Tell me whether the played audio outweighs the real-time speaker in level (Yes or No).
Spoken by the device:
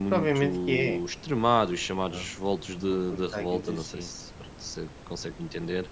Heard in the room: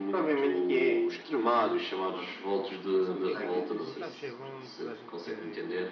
Yes